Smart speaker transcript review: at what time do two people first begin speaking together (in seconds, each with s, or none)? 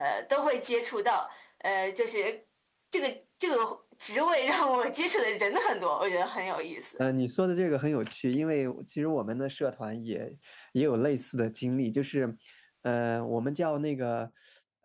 none